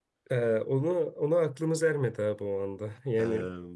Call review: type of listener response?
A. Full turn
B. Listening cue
B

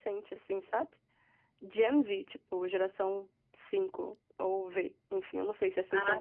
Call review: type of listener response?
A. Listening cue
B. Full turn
B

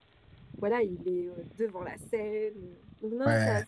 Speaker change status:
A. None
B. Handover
B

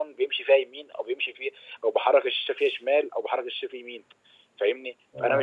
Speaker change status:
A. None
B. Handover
A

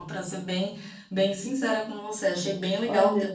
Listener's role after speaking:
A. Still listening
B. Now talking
A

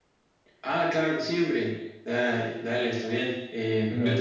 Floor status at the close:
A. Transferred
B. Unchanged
B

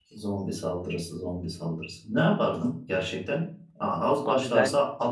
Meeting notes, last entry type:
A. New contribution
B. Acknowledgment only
B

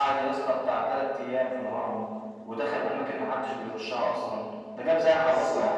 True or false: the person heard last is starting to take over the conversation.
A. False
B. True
B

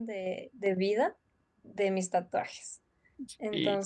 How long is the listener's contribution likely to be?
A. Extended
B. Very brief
B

